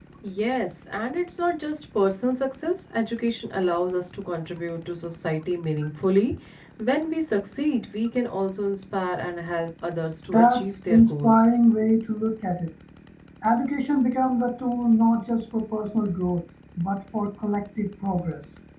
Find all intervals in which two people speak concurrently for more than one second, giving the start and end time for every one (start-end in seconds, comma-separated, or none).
10.3-11.6